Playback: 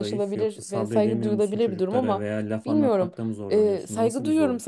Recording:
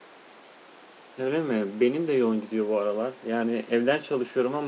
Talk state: user only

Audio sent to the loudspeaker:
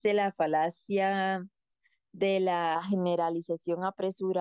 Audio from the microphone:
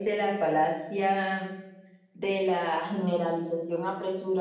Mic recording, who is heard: echo only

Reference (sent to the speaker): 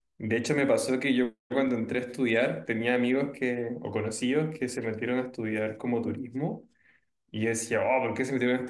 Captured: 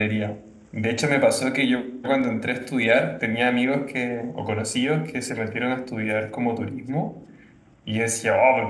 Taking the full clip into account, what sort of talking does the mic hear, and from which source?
echo only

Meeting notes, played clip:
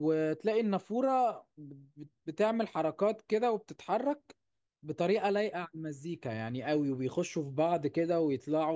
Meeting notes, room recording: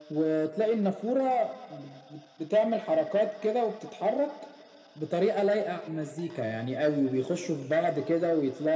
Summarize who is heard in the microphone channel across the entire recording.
echo only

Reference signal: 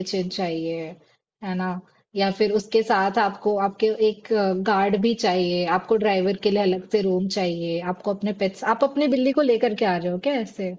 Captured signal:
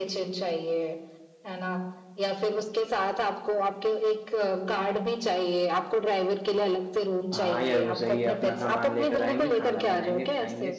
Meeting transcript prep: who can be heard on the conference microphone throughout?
both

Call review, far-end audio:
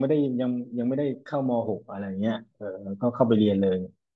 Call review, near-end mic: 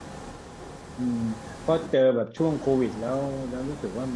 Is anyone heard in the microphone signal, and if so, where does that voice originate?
user only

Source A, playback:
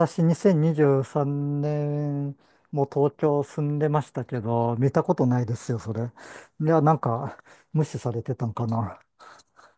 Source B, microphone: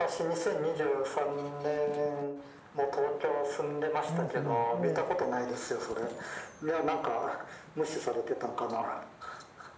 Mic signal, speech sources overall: both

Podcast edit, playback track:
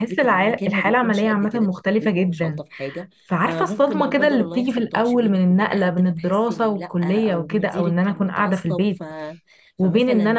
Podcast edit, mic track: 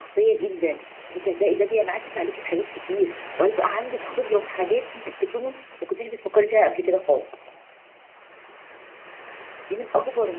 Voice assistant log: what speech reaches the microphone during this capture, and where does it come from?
user only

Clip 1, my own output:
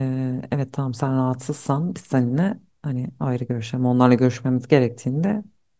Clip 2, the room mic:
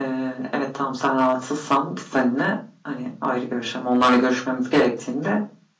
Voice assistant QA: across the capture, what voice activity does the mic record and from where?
echo only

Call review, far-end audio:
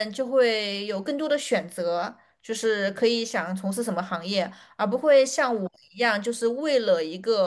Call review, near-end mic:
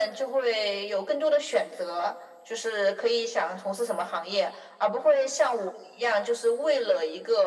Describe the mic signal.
echo only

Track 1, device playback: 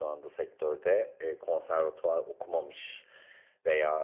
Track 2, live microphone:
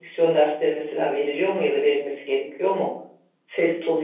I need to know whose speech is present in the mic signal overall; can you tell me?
user only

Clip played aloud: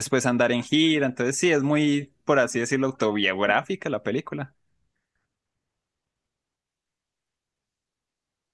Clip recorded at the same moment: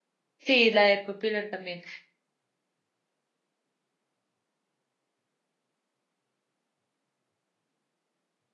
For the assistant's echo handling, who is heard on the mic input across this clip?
user only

